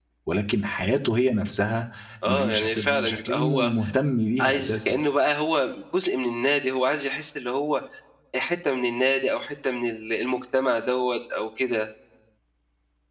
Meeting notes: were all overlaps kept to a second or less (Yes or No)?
No